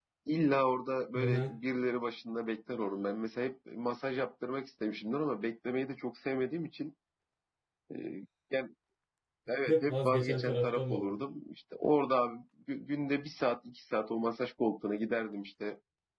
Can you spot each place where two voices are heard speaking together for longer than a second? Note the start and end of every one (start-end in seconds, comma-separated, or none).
9.7-11.2